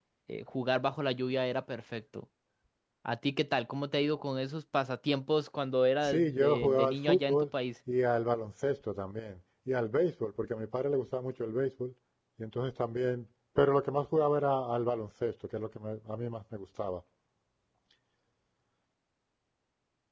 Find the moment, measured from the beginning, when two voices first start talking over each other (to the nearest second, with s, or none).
6 s